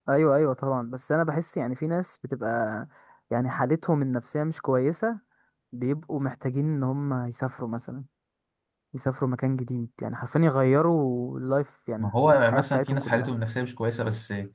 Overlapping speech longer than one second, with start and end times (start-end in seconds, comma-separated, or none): 12.0-13.3